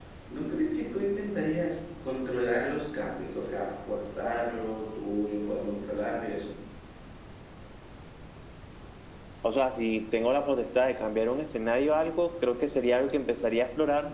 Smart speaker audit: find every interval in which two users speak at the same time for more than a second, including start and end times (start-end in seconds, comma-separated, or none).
none